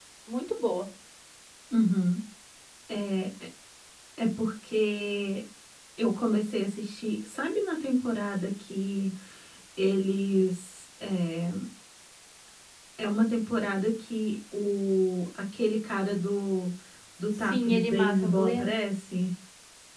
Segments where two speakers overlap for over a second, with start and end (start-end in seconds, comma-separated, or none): 17.4-18.7